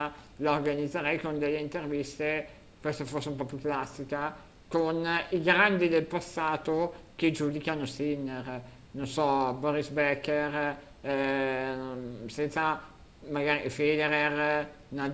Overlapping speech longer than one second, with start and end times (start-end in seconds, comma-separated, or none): none